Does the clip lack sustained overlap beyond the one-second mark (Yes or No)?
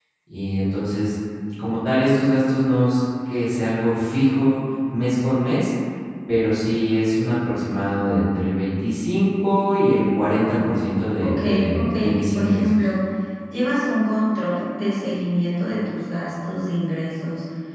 No